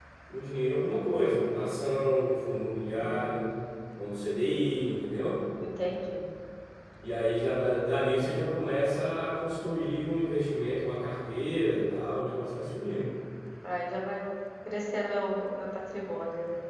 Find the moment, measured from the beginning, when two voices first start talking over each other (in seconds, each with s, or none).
none